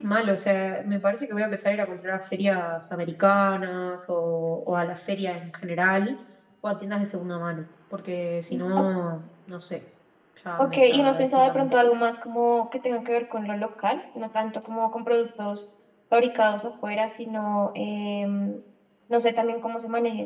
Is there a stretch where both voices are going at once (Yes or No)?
Yes